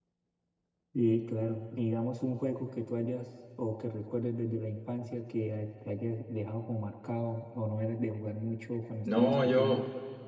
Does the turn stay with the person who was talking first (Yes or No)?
No